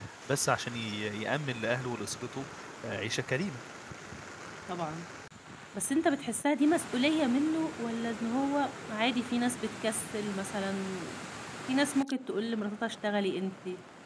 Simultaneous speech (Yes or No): No